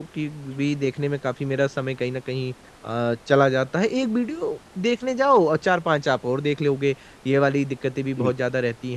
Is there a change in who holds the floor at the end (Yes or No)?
No